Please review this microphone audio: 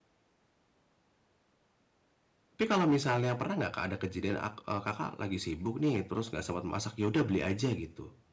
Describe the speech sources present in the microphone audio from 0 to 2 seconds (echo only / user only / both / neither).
neither